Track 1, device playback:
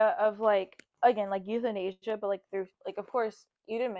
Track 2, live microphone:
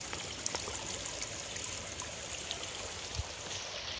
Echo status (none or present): none